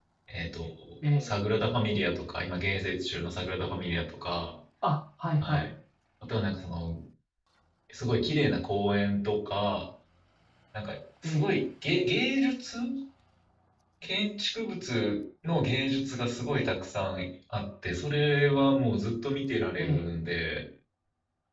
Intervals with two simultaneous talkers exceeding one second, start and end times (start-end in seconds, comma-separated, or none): none